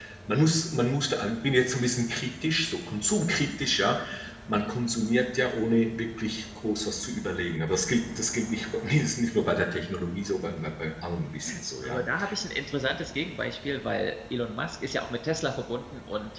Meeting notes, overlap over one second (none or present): none